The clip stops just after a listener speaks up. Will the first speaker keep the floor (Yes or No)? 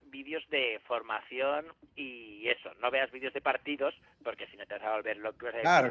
No